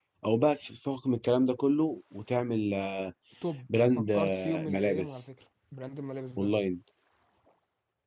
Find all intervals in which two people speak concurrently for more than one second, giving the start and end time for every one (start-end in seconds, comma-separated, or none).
4.0-5.3